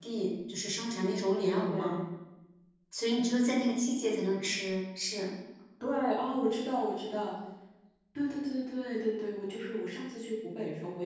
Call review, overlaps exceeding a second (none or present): none